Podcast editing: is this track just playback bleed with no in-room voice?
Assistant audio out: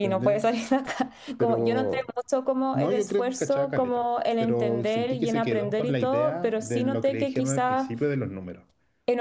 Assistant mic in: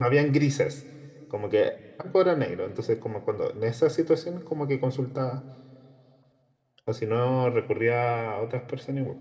No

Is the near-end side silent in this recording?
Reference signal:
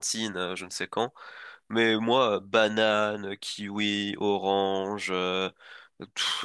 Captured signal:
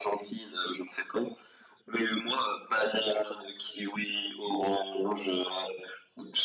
Yes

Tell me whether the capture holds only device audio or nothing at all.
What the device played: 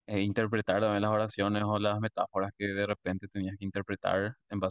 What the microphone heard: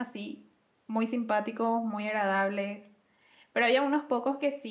No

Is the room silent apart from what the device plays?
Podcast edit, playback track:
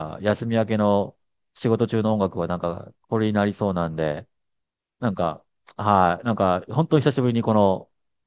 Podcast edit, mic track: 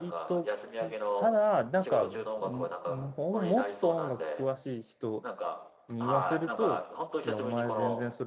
No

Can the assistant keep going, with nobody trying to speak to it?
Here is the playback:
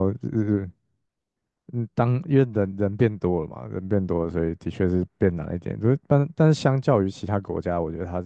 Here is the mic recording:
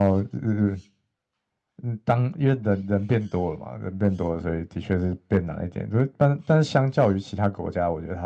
Yes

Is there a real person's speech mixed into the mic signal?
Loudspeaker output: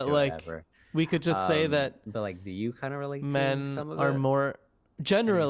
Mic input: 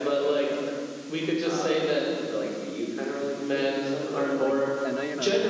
Yes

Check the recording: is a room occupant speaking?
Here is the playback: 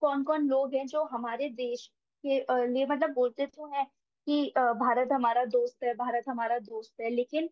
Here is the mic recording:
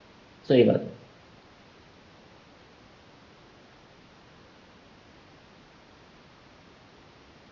Yes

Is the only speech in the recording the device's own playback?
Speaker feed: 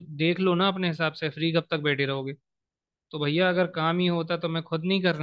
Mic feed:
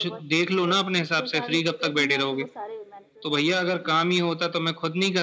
No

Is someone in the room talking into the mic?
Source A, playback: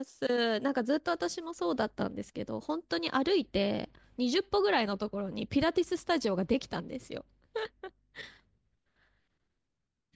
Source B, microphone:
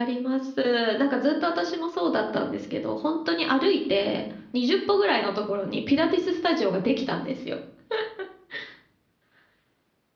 No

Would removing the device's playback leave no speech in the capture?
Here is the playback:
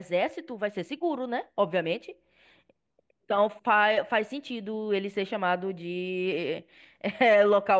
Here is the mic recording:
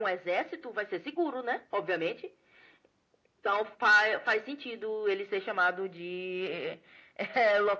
Yes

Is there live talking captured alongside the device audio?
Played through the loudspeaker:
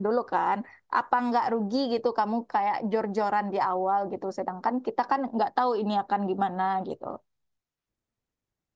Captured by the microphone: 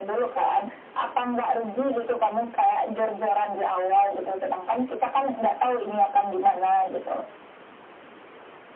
No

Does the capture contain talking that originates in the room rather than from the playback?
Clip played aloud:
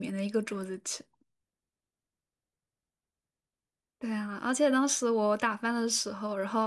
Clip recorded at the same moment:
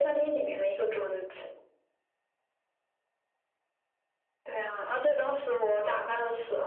No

